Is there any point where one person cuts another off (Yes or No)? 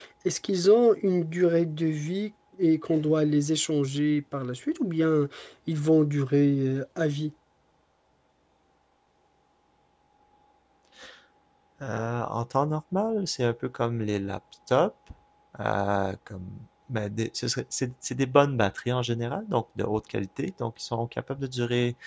No